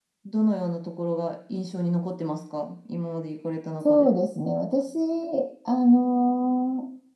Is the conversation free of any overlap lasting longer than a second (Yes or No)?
Yes